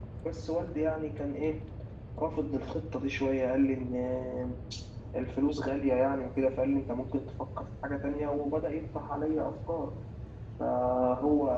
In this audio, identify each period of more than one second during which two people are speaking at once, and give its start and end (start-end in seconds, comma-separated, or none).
none